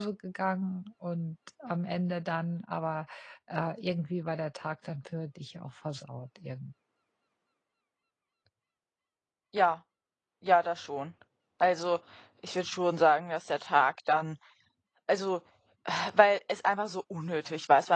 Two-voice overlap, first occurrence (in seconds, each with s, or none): none